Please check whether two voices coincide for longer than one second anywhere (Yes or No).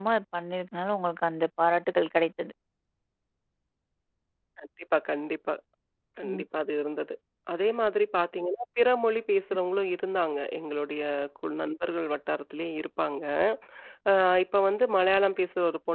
No